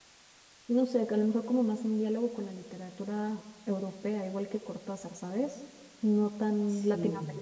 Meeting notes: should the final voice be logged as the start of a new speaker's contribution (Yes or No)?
No